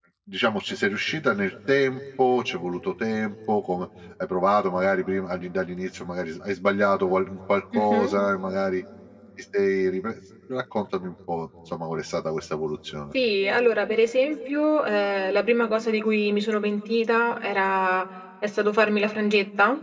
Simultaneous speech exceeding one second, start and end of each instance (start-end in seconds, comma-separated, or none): none